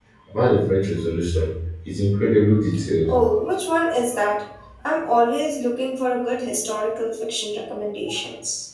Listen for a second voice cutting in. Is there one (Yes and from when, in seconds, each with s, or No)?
No